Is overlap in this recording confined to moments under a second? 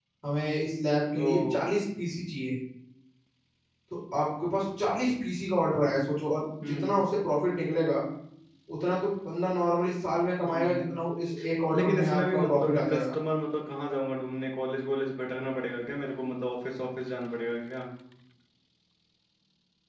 No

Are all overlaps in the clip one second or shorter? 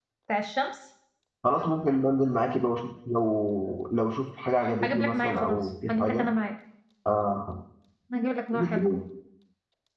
No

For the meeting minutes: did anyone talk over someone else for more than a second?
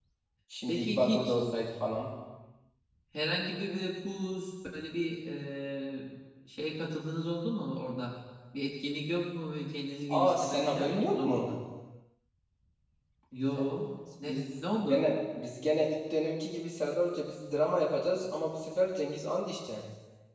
Yes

